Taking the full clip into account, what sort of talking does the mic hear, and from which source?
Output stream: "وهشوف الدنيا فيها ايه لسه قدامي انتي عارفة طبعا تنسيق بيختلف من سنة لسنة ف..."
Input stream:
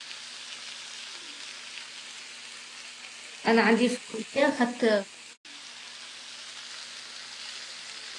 user only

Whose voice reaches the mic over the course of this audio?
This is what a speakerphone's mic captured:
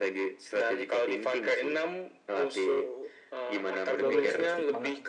both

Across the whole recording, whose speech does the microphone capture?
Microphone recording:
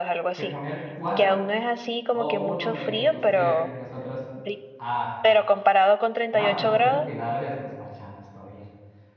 both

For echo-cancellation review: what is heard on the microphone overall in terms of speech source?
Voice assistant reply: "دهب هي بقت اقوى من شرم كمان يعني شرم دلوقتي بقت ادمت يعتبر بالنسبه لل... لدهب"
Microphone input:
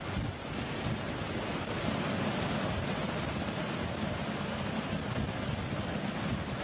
neither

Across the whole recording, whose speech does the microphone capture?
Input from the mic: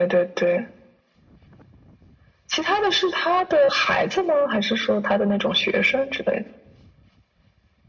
echo only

